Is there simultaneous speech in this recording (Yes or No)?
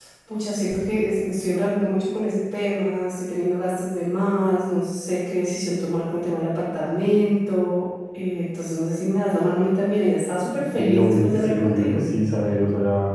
Yes